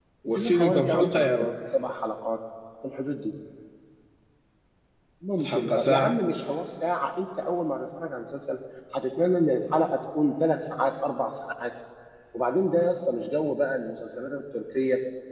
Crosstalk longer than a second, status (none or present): present